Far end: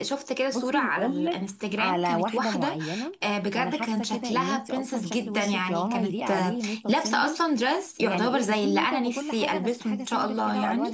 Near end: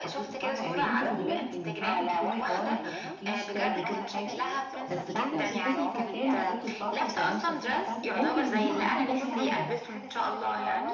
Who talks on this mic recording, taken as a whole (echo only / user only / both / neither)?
both